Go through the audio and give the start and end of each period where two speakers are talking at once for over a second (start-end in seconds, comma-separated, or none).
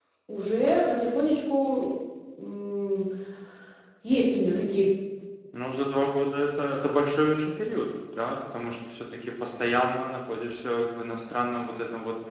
none